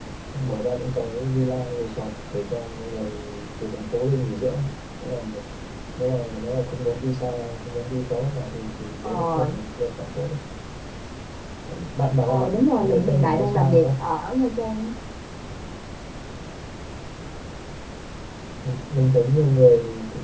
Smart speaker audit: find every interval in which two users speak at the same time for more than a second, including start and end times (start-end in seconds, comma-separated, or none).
12.3-13.9